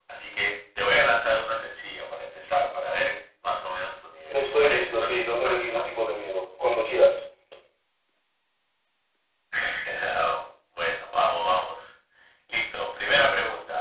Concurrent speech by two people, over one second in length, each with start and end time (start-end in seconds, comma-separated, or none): 4.3-5.9